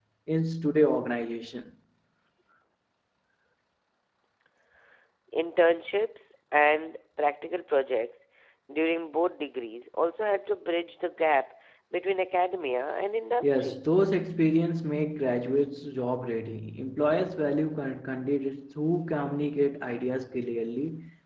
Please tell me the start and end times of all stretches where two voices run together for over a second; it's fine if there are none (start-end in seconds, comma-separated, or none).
none